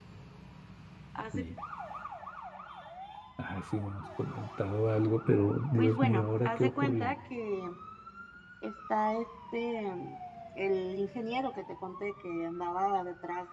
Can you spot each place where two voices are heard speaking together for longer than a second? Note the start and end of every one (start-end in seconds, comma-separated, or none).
5.8-7.1